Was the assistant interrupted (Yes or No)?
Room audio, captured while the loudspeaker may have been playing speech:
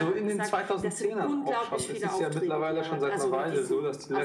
No